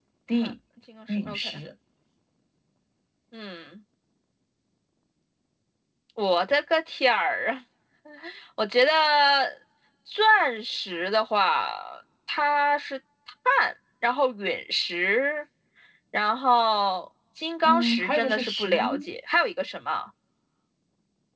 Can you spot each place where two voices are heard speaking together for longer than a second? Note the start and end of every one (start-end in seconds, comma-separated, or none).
17.6-19.1